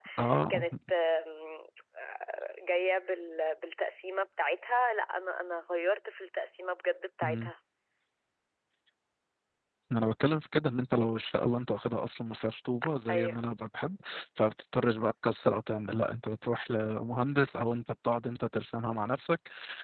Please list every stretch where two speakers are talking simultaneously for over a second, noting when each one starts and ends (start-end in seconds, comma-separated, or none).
none